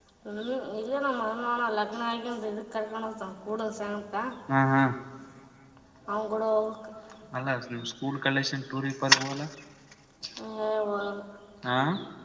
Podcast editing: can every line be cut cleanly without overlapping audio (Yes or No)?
Yes